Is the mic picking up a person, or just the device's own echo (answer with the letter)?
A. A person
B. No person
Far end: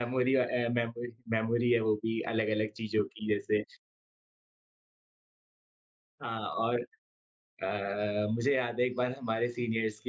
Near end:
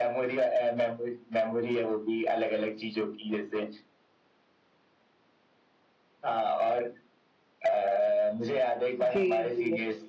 A